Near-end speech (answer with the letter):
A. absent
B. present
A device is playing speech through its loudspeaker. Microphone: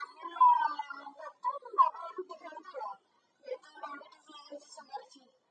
A